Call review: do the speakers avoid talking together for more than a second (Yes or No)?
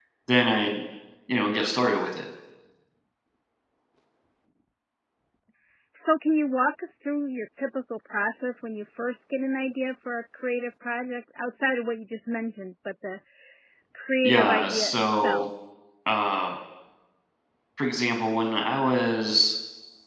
No